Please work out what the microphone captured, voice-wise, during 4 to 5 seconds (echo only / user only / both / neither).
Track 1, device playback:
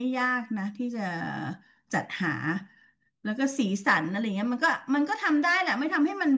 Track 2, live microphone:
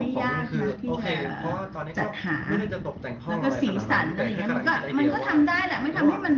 both